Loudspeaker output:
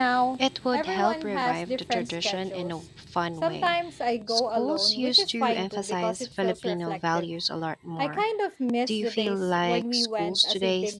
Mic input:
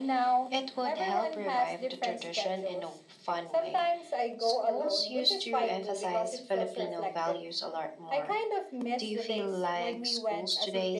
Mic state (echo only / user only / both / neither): echo only